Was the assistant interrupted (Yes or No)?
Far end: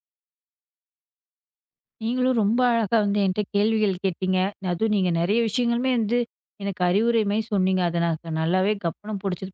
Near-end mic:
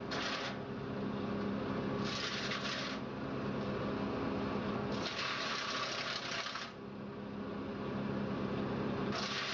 No